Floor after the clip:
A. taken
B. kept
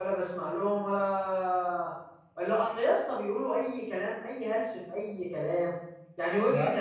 B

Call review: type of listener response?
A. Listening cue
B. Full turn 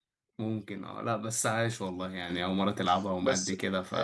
B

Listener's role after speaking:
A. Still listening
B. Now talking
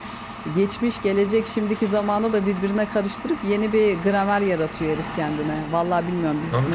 A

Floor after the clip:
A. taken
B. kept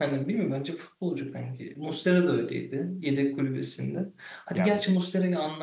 B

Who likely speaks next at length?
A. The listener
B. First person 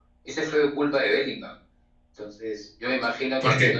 B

